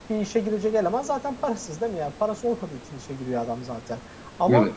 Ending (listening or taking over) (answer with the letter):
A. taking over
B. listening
B